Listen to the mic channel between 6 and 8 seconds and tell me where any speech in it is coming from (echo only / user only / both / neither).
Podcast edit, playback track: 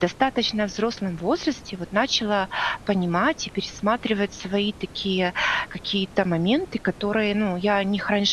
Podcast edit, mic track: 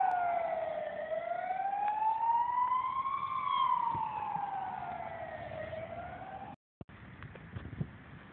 neither